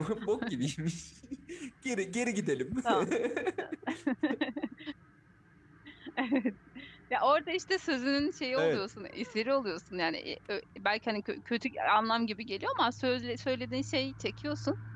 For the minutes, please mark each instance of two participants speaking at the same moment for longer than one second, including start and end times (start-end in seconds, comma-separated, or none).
none